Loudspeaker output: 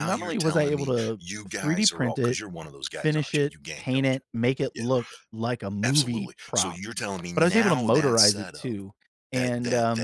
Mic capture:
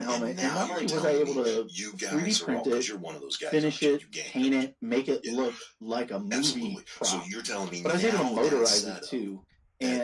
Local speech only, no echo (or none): none